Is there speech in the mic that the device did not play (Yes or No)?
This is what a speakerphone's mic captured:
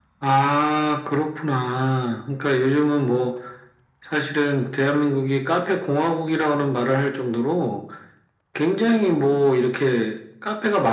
No